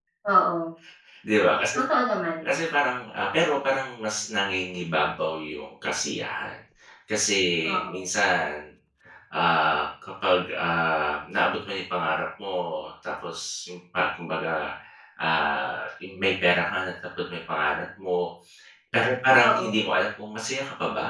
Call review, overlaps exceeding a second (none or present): none